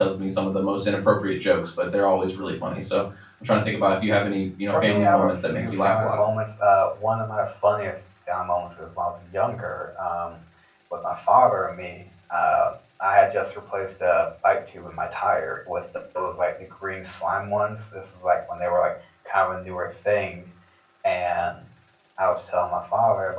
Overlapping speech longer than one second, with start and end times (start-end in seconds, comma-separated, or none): 4.7-6.2